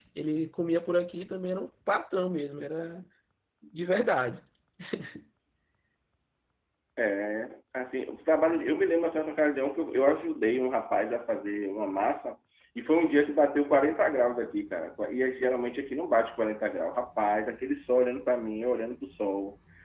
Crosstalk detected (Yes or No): No